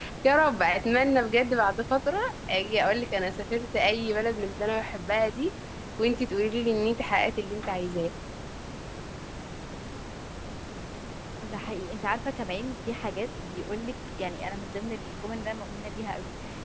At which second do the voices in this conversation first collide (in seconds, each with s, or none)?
none